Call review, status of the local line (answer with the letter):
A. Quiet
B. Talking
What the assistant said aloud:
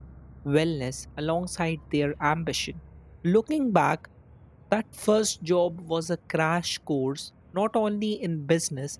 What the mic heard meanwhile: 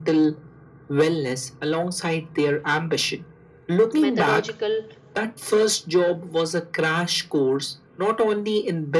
B